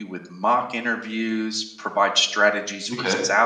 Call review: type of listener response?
listening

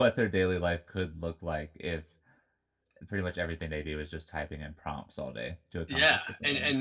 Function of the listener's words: taking over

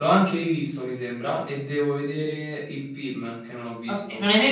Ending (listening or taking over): taking over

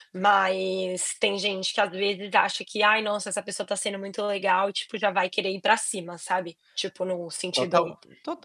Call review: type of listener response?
taking over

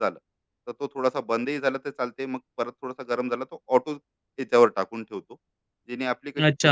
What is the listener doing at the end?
taking over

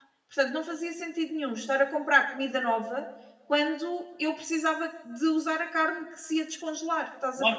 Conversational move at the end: taking over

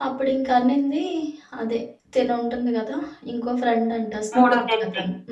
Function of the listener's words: listening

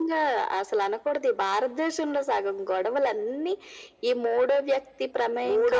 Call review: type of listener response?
taking over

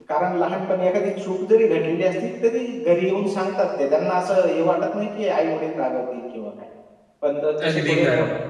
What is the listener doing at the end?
listening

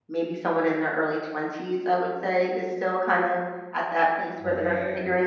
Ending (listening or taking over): listening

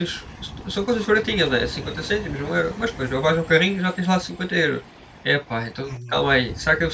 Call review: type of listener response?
listening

